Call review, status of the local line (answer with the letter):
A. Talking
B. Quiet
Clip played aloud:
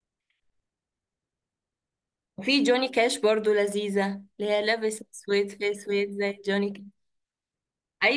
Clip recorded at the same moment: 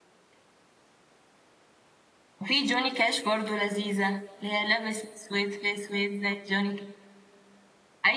B